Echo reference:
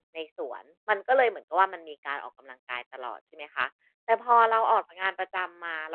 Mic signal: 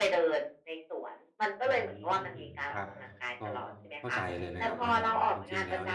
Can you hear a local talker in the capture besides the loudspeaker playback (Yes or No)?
Yes